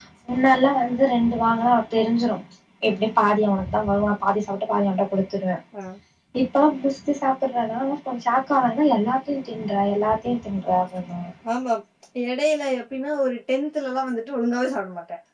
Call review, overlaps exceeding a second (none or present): none